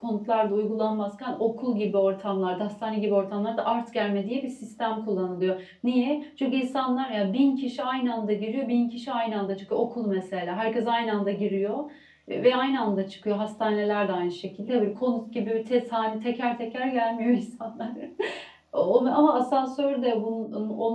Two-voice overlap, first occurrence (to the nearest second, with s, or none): none